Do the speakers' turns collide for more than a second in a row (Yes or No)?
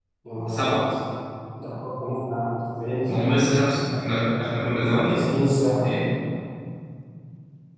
No